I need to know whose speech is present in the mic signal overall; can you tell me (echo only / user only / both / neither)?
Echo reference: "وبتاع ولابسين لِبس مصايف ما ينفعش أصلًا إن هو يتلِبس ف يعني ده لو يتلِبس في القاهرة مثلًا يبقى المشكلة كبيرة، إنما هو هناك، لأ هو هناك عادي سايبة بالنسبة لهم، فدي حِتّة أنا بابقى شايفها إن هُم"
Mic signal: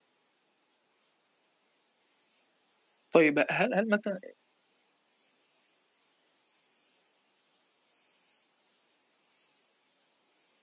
user only